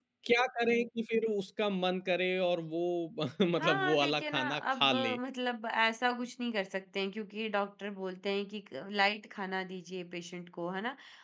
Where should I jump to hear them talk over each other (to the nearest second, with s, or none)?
4 s